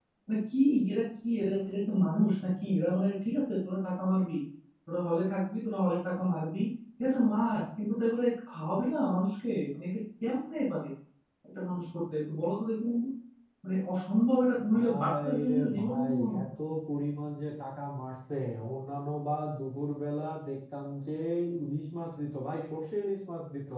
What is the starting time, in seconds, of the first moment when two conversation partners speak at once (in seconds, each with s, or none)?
14.7 s